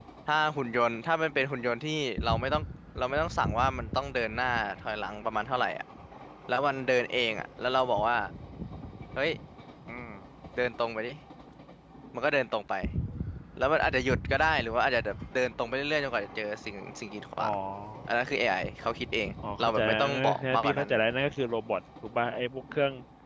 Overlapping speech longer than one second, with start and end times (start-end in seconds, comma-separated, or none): 19.6-20.9